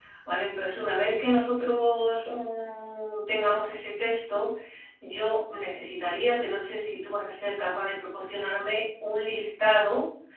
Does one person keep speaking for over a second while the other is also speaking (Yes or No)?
No